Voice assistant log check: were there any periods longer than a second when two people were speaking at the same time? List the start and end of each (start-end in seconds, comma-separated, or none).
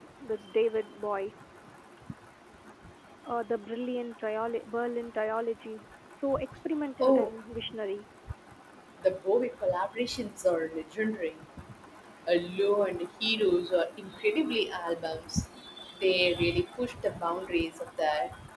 none